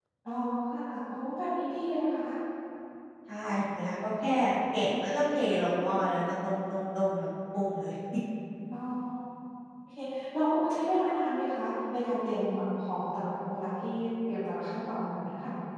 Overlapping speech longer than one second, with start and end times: none

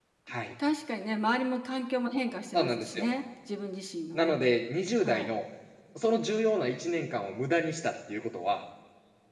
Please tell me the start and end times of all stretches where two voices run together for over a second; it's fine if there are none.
none

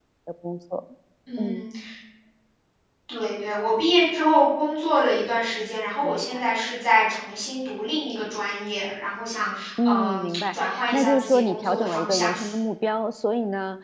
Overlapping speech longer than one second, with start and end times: 9.8-12.3

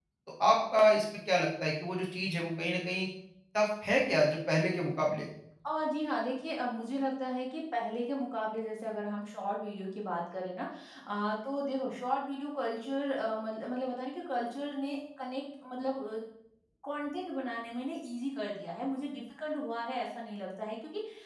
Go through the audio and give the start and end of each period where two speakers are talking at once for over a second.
none

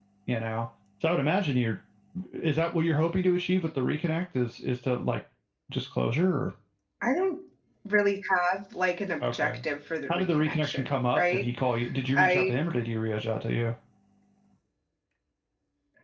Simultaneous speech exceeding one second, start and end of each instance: 10.1-11.4

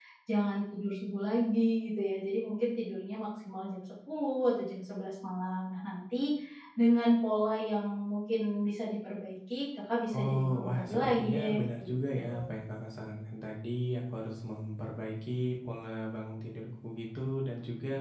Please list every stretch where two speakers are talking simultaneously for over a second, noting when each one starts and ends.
10.1-12.5

